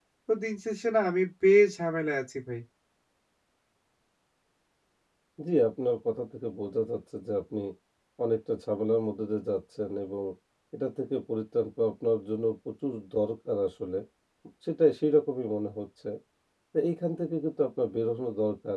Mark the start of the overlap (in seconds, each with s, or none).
none